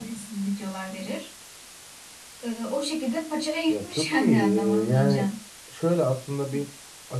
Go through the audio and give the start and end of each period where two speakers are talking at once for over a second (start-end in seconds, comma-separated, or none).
3.7-5.2